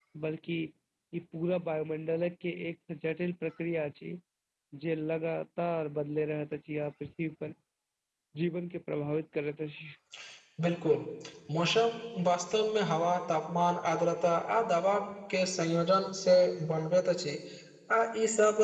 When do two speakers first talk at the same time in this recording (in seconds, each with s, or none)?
none